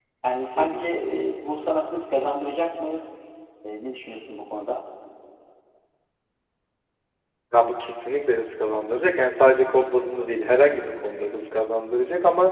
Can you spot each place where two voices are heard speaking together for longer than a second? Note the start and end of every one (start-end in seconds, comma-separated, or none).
none